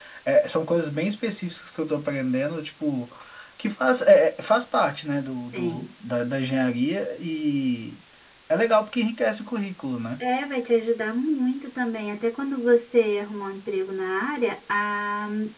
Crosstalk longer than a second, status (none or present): none